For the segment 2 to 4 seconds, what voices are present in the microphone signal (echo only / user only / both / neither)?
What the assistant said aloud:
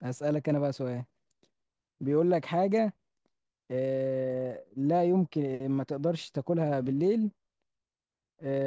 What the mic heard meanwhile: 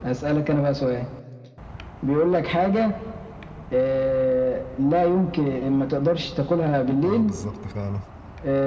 echo only